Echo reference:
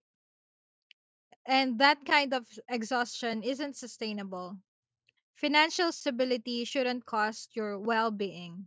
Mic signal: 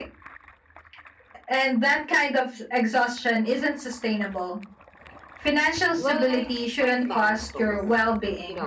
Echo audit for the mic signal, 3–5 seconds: echo only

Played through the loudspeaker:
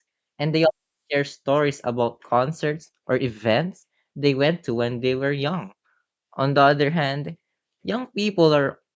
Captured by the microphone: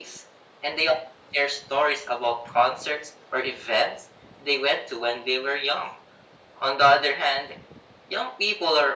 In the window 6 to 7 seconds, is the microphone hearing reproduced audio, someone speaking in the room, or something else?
echo only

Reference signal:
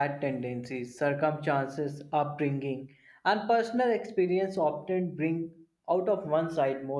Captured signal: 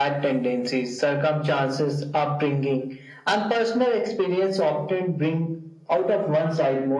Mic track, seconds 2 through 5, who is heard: echo only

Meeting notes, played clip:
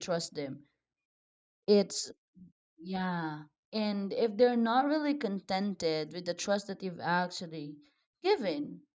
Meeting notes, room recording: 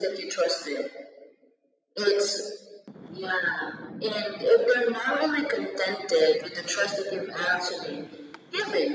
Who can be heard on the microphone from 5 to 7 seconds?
echo only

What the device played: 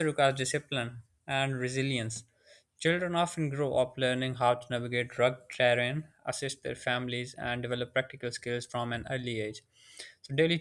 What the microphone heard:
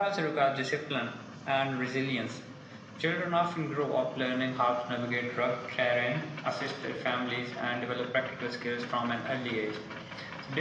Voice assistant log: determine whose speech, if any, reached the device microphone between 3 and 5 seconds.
echo only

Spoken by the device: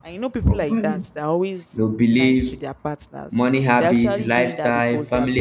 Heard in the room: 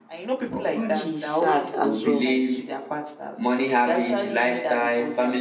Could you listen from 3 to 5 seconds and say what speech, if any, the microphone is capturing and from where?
echo only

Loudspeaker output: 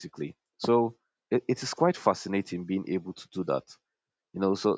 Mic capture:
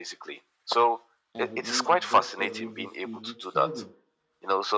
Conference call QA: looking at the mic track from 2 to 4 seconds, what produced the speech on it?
both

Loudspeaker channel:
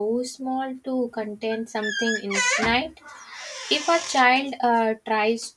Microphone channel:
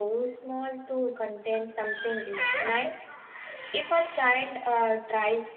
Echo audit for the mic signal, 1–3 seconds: echo only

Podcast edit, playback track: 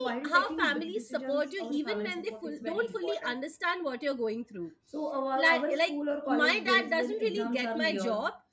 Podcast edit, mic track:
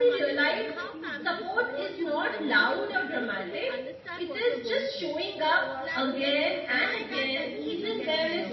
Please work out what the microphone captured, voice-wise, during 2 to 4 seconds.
both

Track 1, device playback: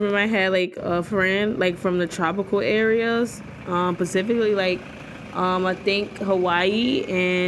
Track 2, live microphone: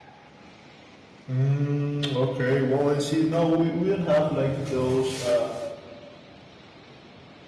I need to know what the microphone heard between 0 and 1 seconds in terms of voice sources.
neither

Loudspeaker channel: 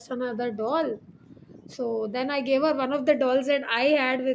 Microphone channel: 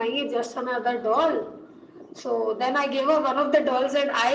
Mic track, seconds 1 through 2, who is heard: echo only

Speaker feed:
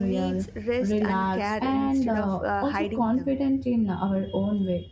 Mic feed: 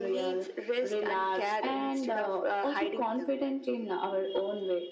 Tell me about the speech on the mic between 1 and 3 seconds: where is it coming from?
echo only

